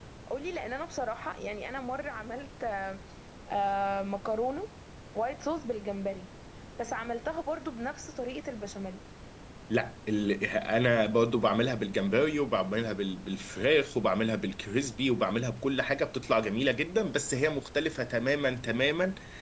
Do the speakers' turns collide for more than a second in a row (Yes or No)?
No